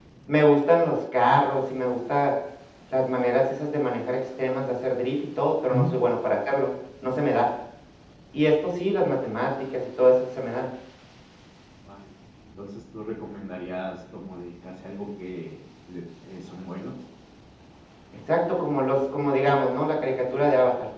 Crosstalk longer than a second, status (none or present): none